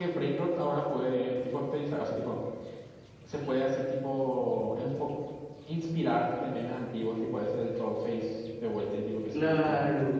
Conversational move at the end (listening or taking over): taking over